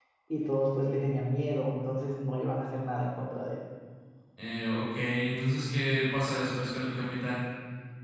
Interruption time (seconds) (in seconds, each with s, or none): none